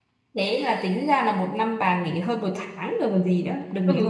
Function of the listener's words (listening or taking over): taking over